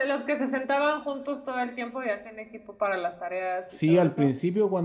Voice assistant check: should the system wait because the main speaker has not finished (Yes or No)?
No